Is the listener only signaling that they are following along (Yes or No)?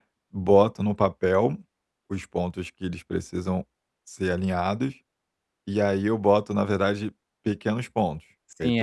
No